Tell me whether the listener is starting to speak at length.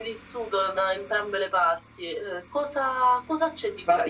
Yes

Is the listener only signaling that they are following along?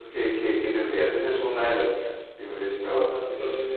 No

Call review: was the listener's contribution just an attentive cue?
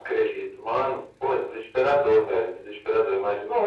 No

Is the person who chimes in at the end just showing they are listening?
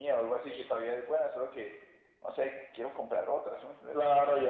No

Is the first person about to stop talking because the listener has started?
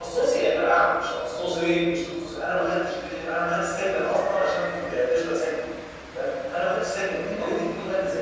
No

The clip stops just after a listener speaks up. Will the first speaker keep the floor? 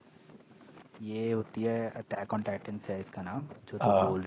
Yes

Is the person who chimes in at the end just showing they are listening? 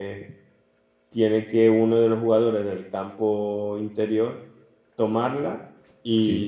Yes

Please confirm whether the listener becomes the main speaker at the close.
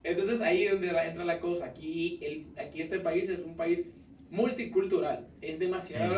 No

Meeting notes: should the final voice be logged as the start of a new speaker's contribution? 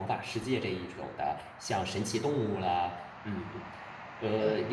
No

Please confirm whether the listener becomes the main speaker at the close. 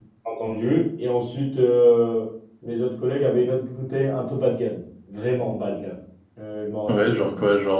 Yes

